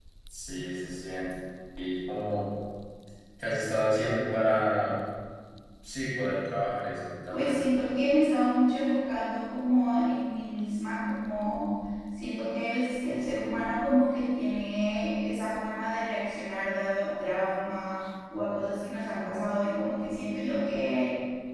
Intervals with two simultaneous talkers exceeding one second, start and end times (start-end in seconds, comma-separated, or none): none